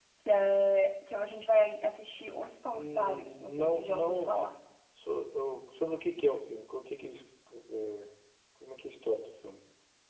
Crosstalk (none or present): present